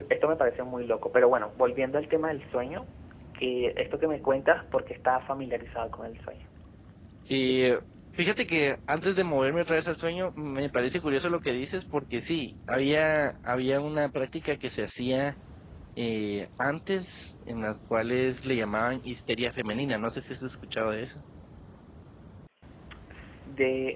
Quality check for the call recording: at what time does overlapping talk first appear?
none

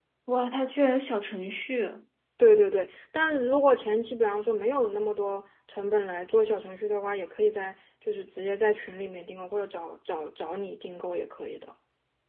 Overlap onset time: none

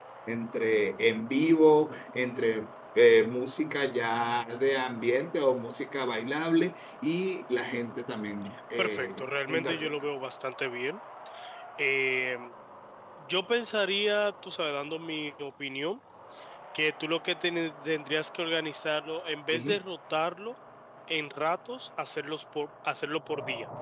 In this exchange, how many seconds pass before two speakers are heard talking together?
8.8 s

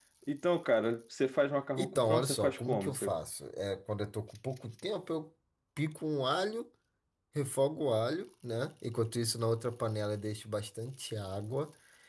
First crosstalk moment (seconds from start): 1.8 s

